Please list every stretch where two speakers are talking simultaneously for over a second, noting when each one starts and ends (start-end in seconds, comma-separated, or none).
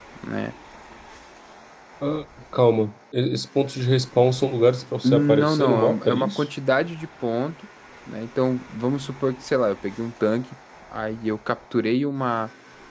5.0-6.4